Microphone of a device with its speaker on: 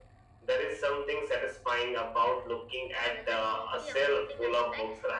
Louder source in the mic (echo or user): echo